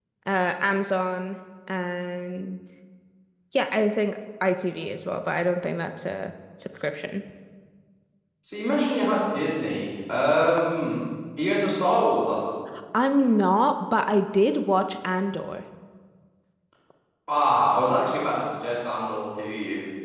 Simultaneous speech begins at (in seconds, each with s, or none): none